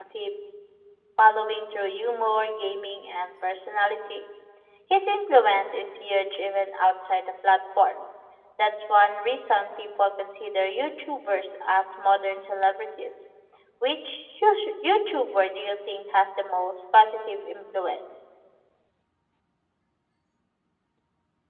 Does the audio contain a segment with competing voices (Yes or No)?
No